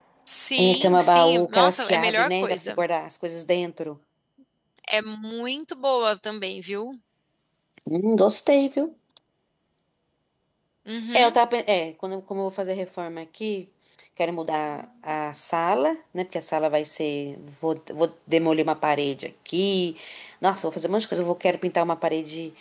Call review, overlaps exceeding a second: present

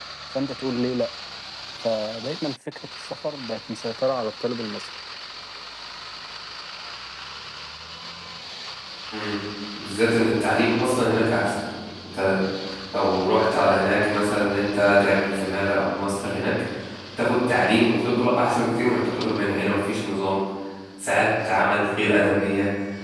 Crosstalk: none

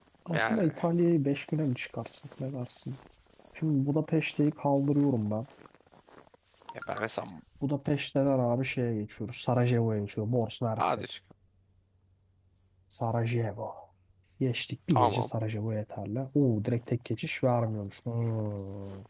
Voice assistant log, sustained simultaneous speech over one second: none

